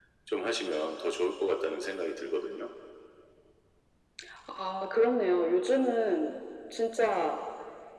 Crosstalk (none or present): none